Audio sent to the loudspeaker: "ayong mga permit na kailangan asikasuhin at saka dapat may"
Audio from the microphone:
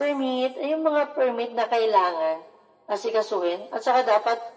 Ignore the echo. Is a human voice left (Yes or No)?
No